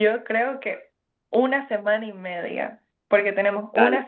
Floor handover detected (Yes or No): No